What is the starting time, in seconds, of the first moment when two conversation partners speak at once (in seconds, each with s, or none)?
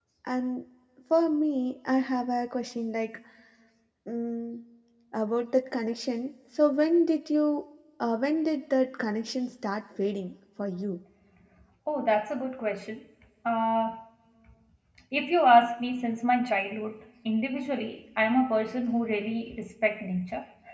none